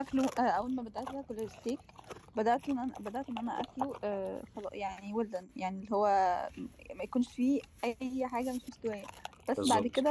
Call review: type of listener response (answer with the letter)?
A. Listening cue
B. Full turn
A